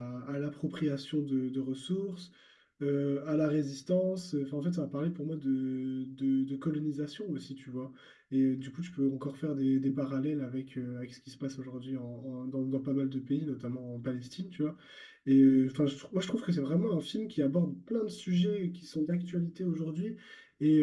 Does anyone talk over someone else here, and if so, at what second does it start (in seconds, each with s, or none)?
none